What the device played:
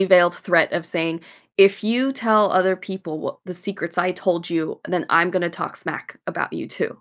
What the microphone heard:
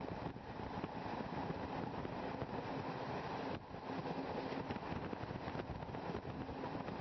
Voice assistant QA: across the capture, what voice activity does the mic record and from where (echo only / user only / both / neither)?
neither